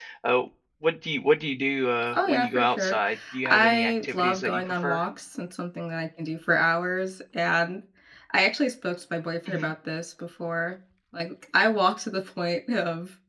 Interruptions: present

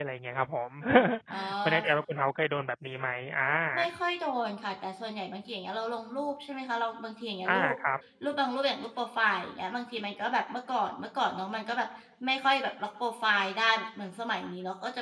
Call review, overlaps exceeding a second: none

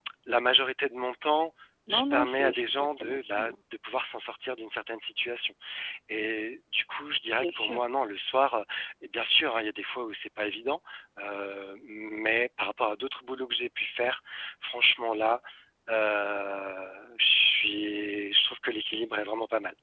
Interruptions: present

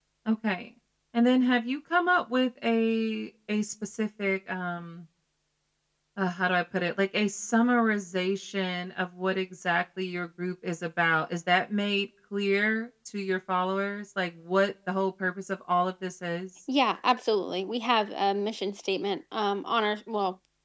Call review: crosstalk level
none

